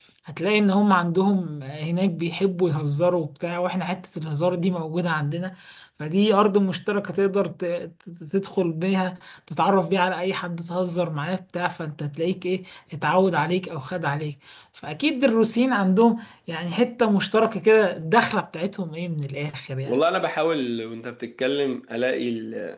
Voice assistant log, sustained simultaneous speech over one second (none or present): none